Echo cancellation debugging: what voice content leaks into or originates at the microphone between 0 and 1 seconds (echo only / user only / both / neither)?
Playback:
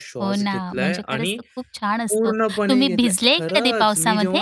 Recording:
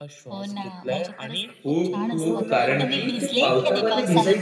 echo only